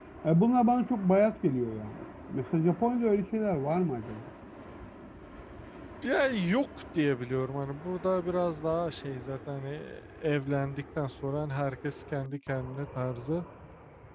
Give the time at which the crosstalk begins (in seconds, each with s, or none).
none